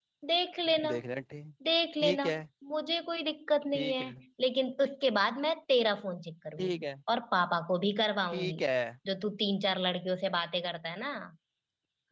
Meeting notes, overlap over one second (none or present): none